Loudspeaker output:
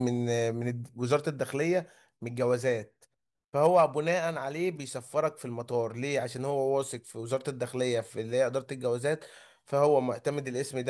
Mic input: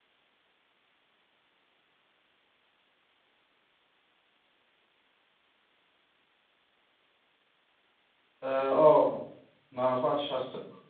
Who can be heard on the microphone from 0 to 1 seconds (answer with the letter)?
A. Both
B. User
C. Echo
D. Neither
D